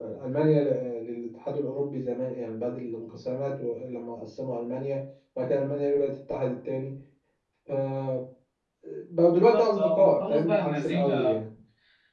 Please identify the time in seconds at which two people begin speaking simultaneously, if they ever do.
9.5 s

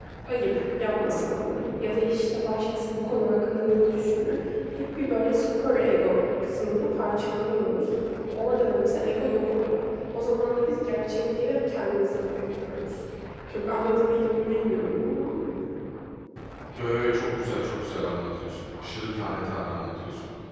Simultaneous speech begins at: none

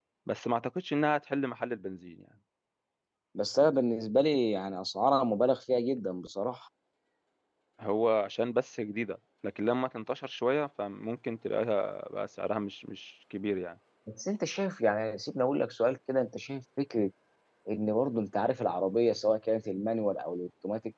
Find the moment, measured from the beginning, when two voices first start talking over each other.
none

